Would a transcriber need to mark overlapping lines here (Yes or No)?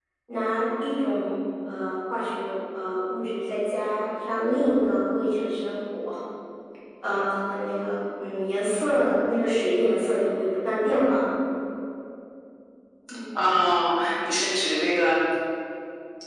No